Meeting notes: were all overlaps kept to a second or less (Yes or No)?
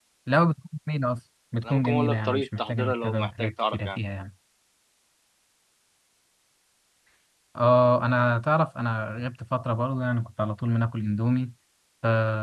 No